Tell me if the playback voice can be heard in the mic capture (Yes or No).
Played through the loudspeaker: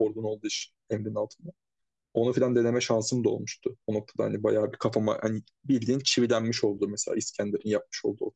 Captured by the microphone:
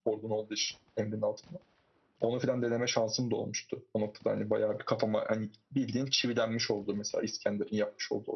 Yes